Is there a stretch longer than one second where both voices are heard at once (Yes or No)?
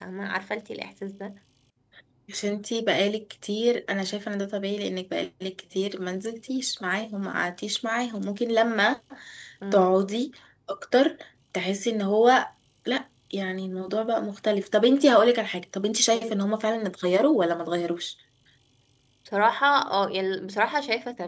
No